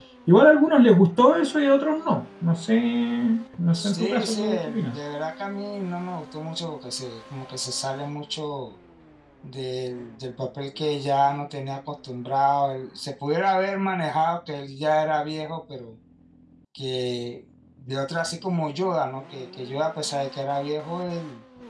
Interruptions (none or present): present